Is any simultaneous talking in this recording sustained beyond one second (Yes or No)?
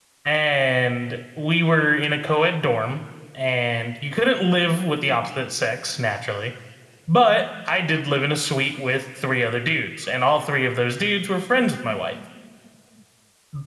No